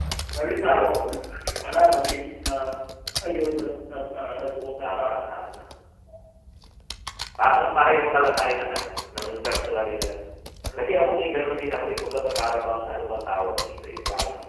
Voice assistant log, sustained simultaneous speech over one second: none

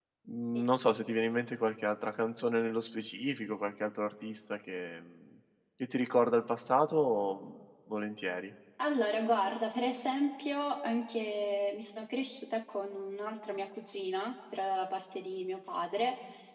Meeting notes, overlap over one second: none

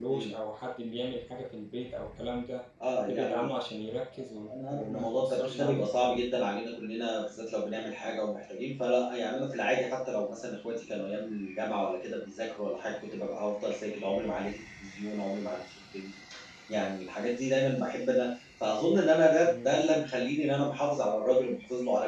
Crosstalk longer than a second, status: present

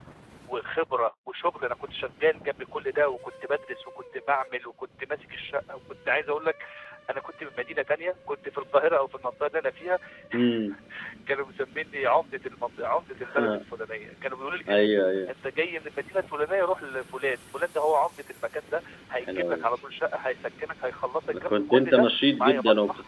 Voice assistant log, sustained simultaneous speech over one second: present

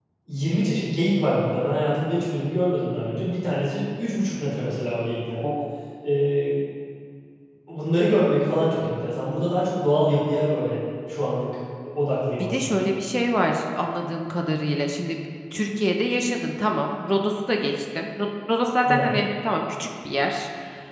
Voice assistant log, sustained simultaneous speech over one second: none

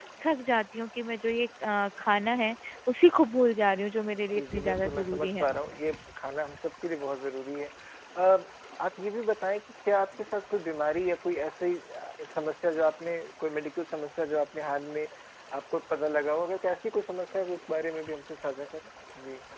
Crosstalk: present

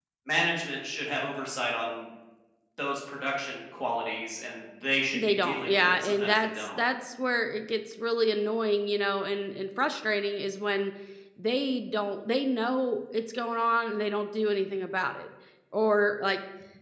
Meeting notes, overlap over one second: present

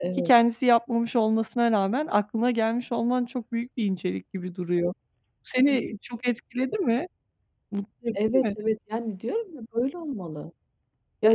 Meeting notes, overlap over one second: none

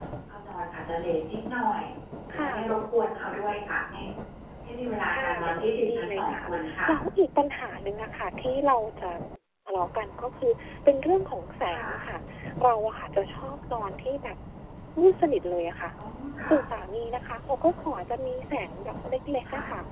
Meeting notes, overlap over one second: present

